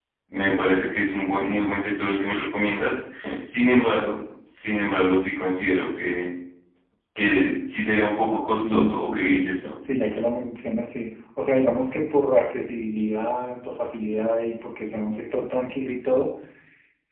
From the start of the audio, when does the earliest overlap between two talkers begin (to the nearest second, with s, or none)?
8 s